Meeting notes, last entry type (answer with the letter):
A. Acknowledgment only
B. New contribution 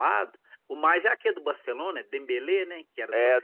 B